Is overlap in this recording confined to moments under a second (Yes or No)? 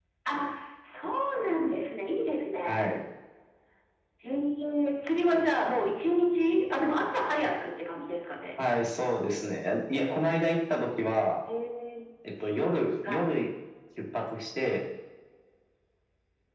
Yes